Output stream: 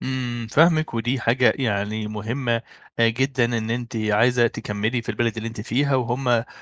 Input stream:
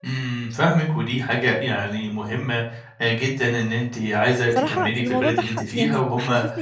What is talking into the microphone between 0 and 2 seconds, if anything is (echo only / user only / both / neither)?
echo only